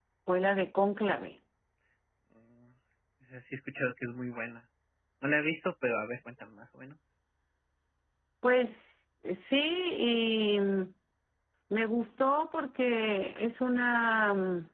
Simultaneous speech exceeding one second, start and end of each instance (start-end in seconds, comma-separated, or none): none